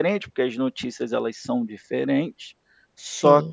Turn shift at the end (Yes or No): No